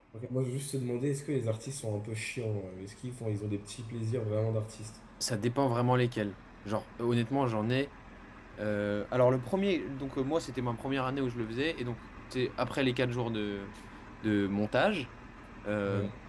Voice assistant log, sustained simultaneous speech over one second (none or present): none